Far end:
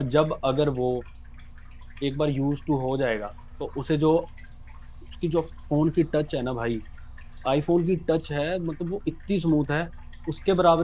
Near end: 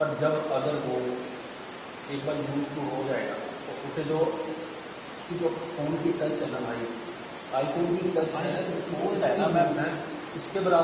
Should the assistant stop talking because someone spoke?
Yes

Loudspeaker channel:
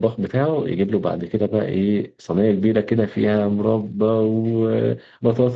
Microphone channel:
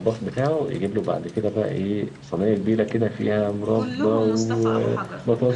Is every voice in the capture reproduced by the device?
No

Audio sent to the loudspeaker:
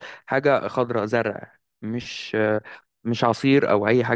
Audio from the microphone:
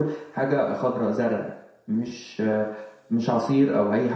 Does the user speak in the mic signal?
No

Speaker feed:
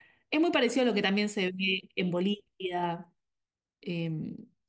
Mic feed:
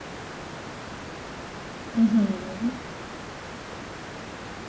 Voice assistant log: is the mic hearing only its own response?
No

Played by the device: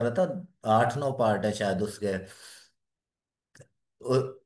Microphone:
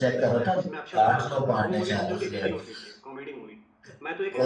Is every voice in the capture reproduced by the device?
No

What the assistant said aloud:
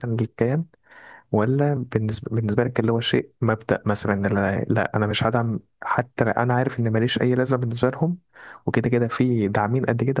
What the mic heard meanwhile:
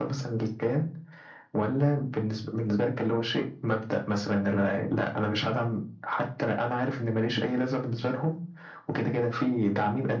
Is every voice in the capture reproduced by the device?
Yes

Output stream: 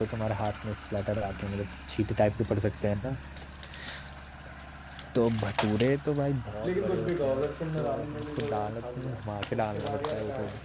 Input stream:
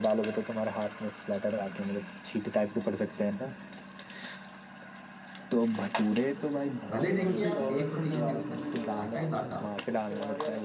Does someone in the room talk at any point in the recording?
Yes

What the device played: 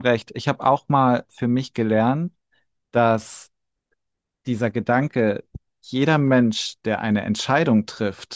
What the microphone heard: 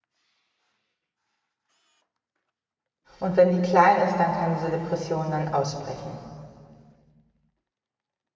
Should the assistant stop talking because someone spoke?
Yes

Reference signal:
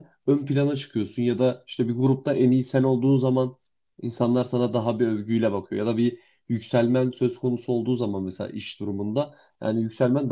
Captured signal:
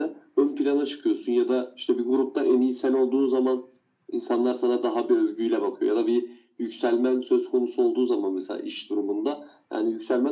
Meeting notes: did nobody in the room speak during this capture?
Yes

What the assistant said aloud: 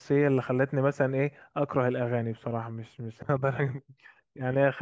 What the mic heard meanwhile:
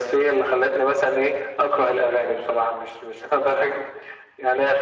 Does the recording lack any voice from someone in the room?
Yes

